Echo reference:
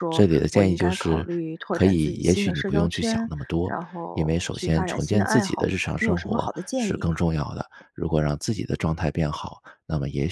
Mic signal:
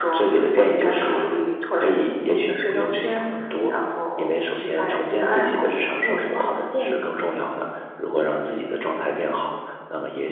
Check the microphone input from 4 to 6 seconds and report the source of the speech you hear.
echo only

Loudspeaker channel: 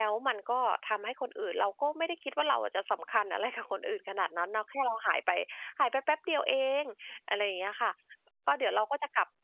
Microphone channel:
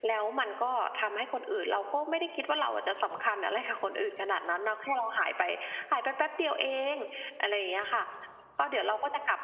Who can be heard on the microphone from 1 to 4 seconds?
echo only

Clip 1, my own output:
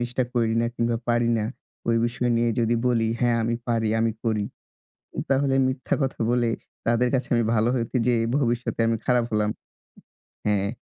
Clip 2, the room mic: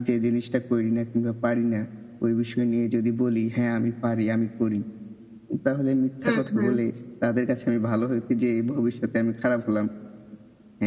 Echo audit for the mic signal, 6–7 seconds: both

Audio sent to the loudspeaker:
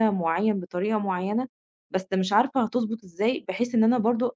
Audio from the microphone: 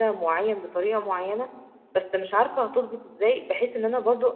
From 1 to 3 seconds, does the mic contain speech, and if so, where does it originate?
echo only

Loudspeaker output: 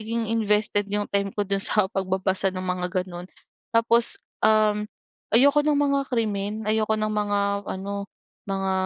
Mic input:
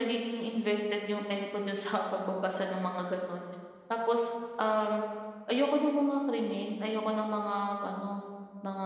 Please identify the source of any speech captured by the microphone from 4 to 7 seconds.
echo only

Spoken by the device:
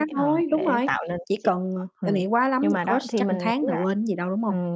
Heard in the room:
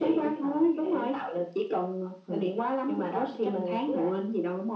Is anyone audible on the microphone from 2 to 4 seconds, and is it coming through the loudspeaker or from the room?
echo only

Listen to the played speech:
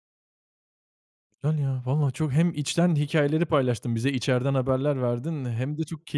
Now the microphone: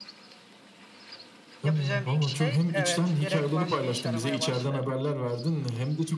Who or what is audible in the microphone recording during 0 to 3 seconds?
both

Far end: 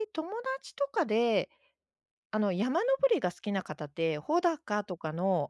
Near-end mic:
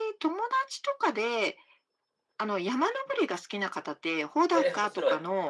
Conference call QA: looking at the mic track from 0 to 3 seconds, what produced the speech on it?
echo only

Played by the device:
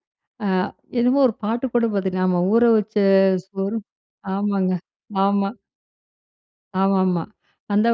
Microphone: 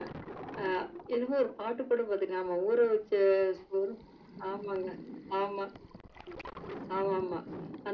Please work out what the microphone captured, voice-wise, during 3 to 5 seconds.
echo only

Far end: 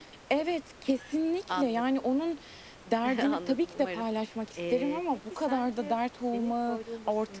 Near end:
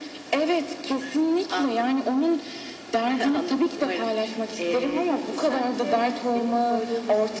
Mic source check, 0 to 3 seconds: echo only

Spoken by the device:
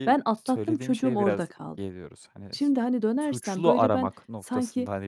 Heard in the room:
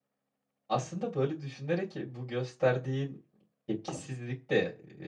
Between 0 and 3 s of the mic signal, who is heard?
user only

